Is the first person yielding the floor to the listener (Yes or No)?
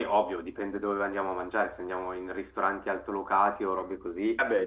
No